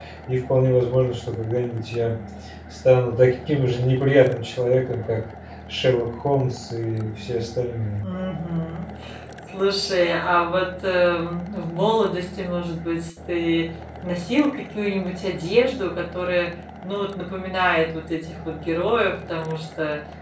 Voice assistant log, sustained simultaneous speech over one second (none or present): none